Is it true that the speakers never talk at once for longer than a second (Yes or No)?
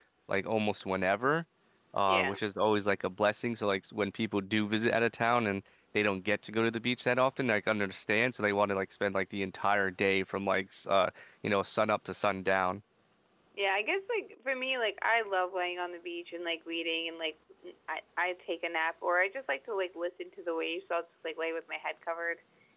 Yes